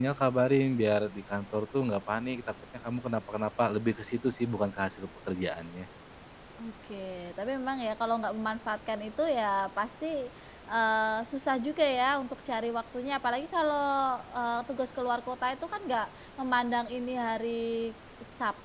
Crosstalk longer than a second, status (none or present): none